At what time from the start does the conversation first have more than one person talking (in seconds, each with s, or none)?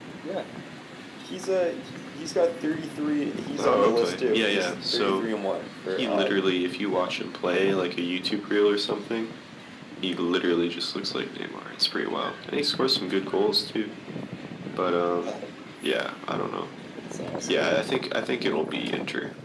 3.6 s